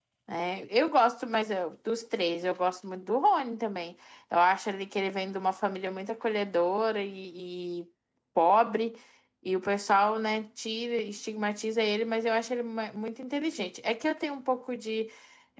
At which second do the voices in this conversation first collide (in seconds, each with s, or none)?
none